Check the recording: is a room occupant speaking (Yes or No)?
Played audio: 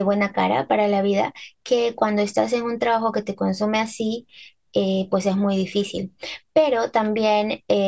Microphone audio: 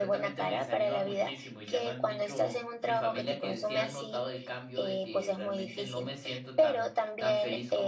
Yes